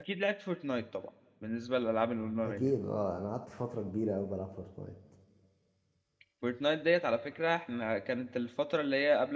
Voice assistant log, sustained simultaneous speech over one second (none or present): none